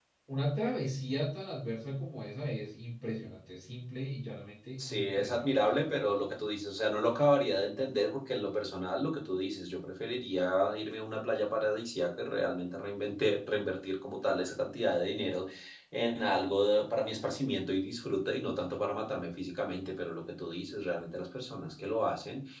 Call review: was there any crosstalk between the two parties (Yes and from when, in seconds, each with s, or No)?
Yes, from 4.8 s